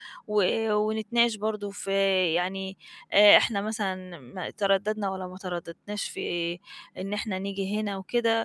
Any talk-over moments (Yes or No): No